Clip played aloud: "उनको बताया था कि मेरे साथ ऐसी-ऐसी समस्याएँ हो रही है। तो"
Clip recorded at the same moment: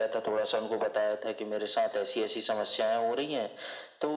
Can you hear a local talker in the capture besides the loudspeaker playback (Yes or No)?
No